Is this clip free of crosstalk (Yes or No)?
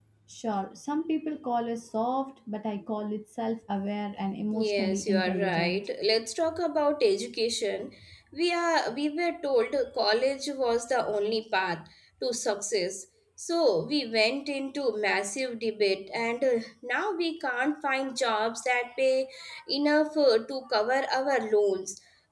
No